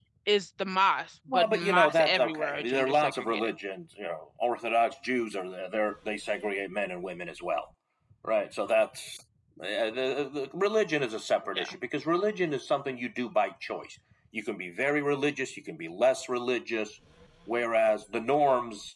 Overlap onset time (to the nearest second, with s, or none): 1 s